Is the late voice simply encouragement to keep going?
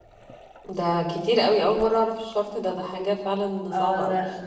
No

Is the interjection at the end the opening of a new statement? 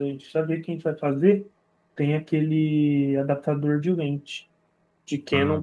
No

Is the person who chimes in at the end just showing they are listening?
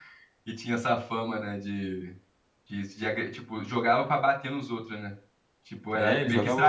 No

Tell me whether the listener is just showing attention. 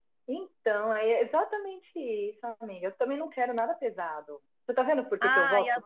No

